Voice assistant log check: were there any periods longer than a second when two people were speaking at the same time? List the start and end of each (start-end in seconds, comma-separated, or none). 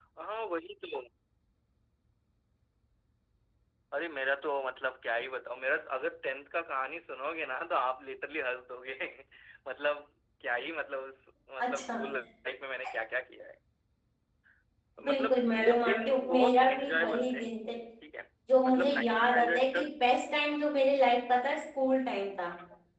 15.0-17.5, 18.7-19.9